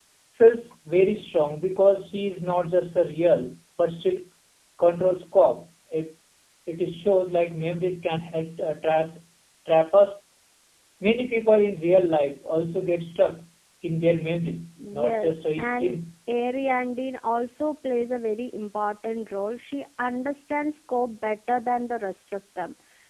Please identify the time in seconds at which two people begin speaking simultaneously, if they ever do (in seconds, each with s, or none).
14.8 s